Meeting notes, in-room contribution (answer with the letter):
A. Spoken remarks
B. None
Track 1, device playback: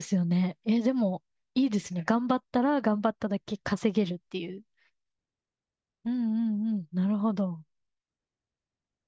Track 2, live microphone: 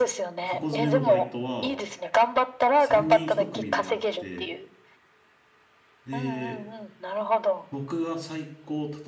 A